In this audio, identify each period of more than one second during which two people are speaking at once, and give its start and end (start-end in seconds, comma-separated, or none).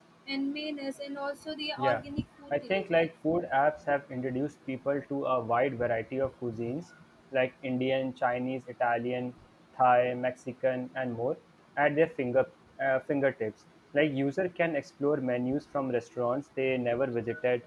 none